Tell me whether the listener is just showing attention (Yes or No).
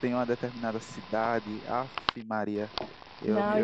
No